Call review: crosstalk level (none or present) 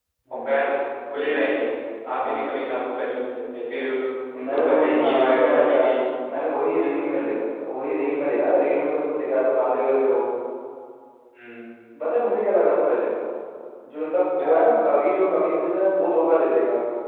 present